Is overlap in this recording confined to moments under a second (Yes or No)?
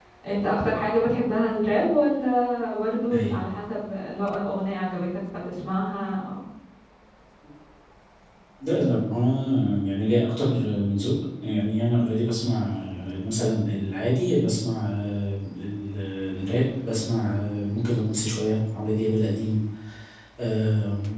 Yes